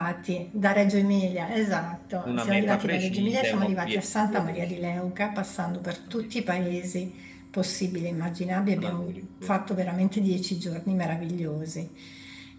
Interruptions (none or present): present